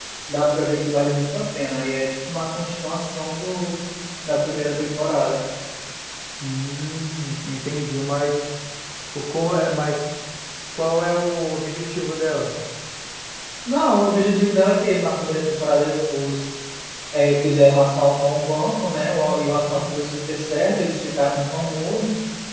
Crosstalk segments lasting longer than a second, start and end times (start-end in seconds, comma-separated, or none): none